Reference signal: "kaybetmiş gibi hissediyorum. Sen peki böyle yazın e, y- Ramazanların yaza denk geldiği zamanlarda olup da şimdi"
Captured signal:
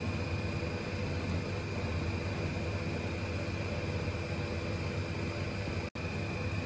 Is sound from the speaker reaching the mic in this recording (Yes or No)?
No